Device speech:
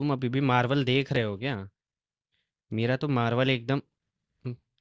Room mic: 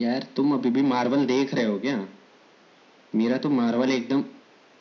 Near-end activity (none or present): none